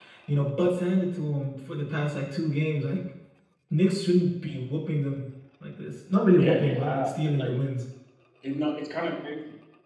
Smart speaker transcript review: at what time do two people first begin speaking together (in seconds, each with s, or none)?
6.4 s